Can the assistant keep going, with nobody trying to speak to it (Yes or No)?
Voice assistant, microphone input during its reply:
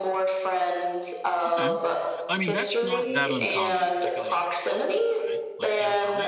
No